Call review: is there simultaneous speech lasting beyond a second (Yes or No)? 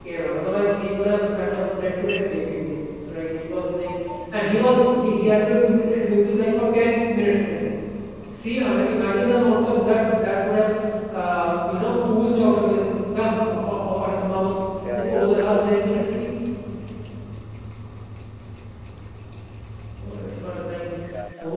Yes